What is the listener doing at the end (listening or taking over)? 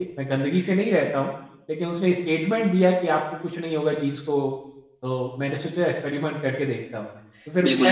taking over